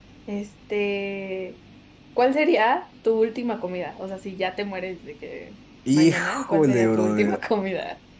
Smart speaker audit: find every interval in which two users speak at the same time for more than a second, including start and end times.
5.9-7.4

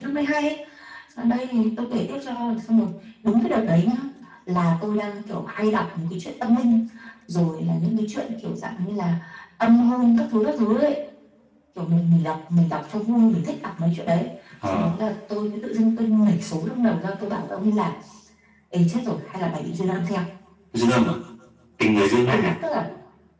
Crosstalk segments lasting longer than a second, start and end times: none

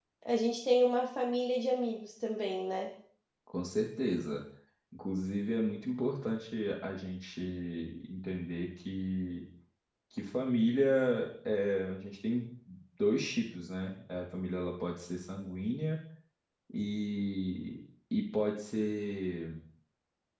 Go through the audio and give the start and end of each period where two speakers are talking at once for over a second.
none

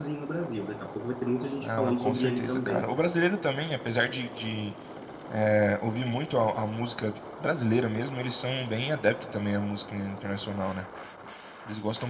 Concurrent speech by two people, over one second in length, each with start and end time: 1.6-2.9

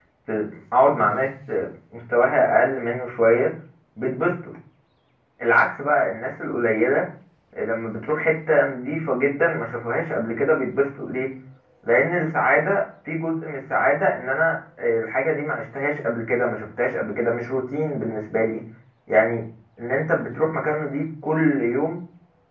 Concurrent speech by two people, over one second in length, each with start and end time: none

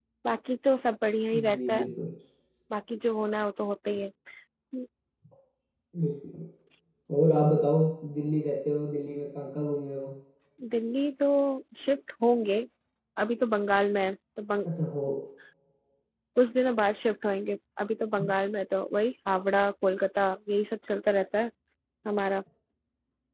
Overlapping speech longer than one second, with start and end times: none

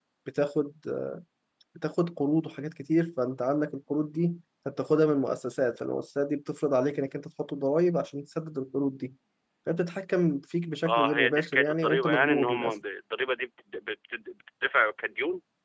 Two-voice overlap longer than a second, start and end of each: 10.8-12.7

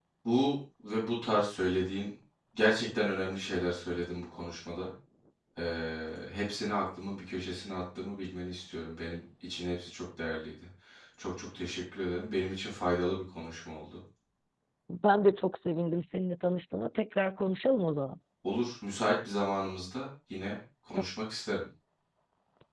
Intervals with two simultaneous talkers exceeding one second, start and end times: none

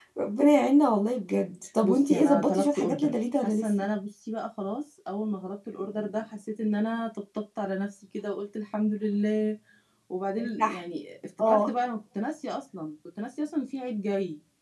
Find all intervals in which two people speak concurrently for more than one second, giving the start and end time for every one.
1.8-3.7

